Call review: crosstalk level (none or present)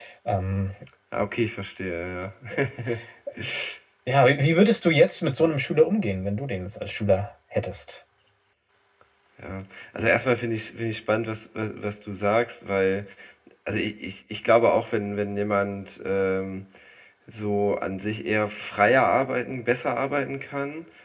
none